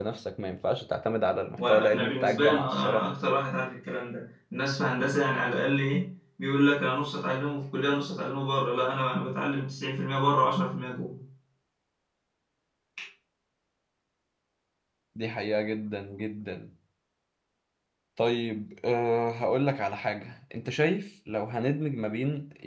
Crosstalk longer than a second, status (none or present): present